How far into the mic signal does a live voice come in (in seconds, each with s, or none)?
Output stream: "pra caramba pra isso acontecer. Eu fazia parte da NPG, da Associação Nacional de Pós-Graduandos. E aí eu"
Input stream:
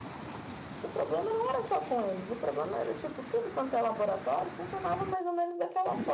0.8 s